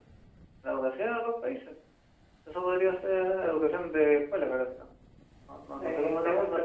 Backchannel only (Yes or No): No